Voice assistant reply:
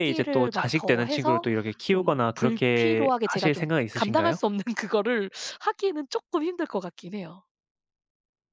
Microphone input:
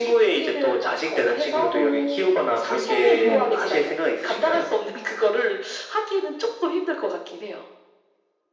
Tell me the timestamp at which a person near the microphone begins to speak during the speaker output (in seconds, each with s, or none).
1.7 s